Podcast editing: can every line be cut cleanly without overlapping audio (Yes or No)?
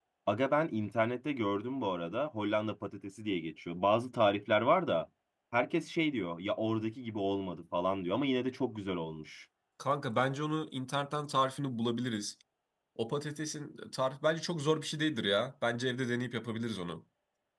Yes